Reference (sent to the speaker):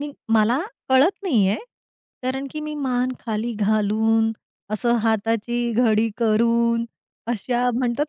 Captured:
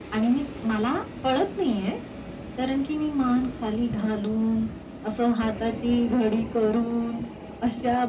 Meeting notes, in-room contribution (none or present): none